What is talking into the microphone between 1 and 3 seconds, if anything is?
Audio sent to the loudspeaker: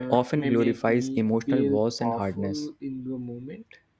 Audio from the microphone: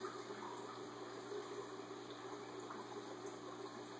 neither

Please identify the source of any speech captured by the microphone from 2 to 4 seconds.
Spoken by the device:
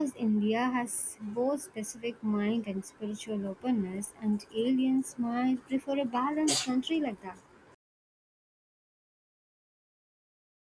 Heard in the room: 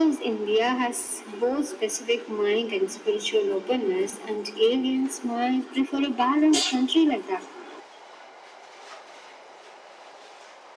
echo only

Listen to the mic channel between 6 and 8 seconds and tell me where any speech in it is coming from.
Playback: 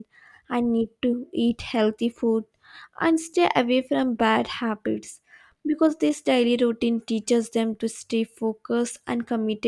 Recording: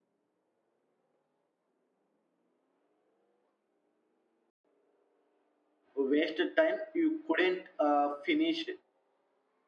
user only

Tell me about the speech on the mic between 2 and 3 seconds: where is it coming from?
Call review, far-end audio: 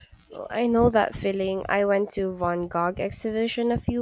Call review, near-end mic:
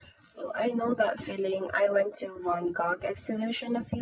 echo only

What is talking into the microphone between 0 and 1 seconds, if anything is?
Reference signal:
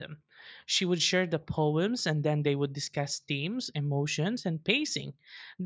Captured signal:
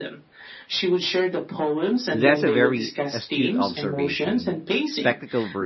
echo only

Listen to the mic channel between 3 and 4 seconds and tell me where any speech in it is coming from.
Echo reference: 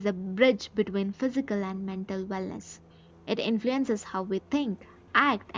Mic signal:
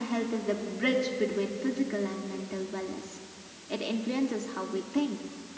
echo only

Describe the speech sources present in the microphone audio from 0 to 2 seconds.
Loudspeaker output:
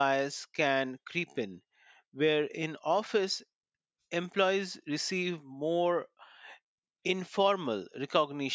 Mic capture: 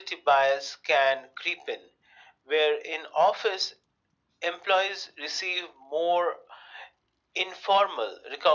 echo only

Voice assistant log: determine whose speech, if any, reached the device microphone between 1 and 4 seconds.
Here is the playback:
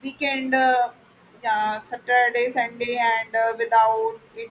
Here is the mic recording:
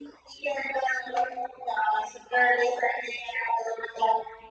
echo only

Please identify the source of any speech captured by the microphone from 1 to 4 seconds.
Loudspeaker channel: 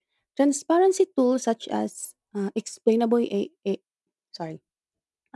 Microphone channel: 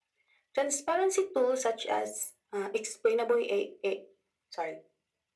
echo only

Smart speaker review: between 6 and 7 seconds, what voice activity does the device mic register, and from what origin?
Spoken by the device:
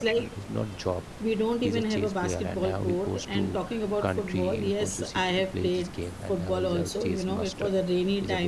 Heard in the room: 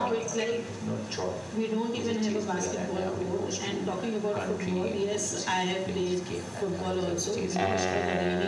echo only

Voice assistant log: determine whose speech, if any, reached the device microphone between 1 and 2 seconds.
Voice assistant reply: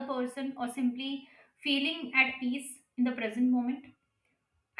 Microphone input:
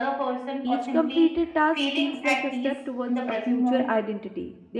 both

